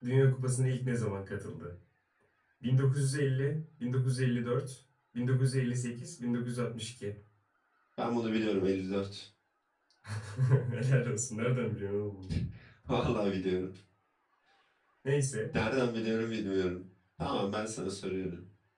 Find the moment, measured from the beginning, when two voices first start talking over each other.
none

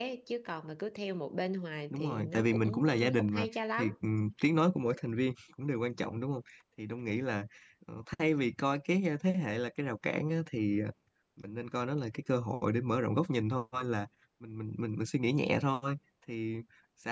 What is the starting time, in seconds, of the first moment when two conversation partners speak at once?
2 s

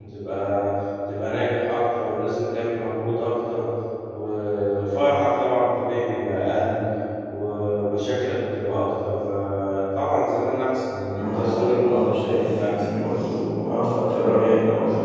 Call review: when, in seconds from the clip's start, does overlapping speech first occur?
11 s

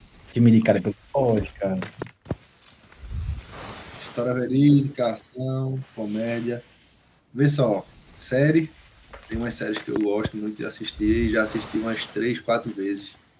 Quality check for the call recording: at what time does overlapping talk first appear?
none

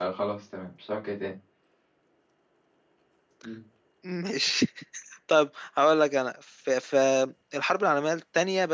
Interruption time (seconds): none

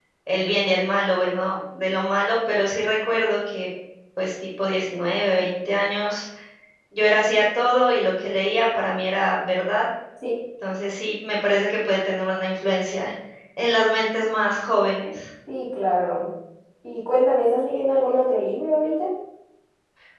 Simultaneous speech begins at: none

